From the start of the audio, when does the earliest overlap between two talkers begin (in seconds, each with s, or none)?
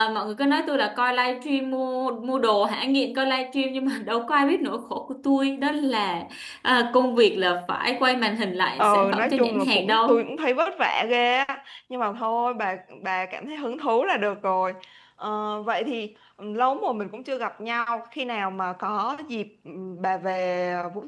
8.8 s